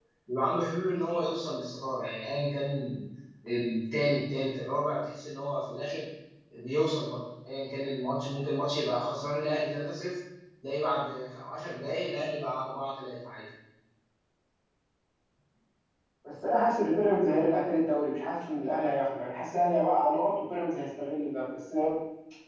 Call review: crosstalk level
none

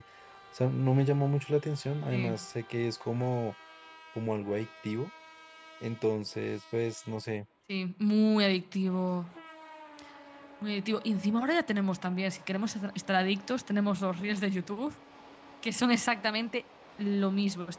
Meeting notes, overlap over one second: none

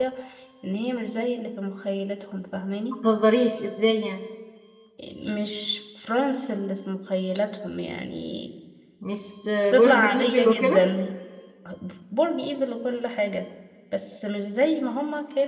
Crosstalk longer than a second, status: present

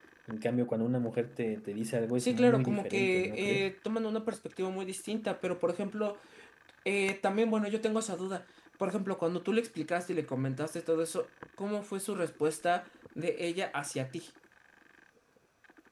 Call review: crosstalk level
present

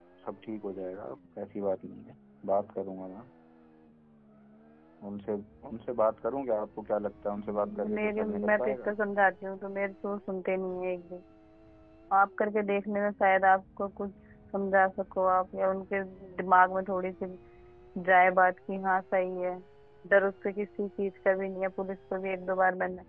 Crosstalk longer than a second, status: present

